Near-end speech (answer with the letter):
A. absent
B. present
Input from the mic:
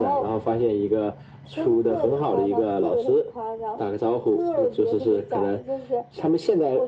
A